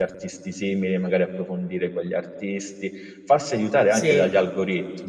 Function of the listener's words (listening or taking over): listening